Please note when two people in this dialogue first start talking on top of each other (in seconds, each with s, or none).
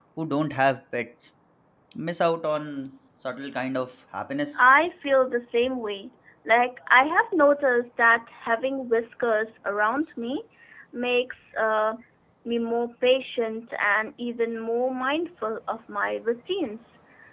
none